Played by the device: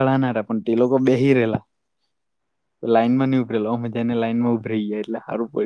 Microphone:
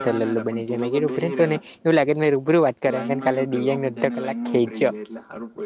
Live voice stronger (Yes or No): Yes